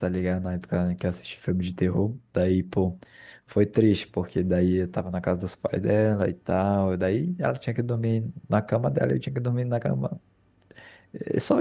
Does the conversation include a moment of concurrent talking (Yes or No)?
No